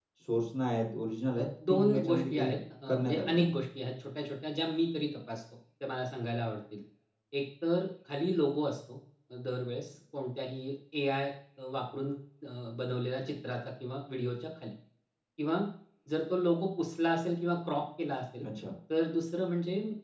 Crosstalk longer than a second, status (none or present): present